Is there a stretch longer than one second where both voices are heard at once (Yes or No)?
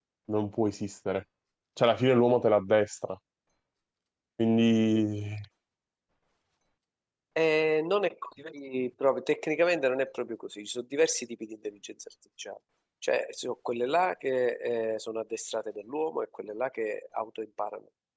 No